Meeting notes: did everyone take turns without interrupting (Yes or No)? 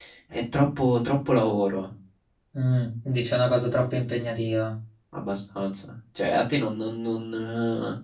Yes